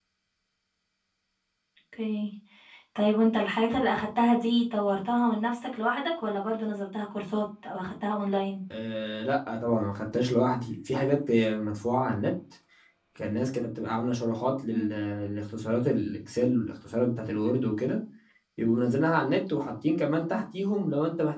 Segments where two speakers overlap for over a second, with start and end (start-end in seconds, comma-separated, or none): none